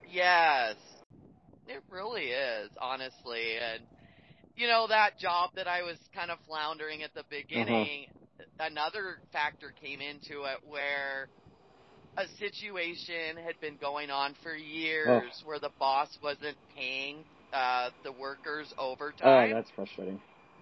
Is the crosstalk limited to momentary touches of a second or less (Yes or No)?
Yes